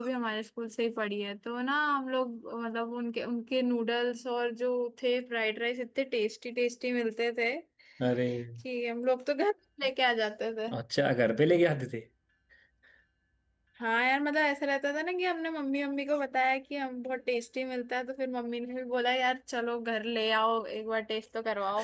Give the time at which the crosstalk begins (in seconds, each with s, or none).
none